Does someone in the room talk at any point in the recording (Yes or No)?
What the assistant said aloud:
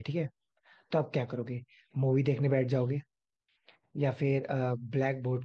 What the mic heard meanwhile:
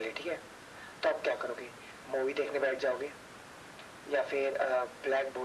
No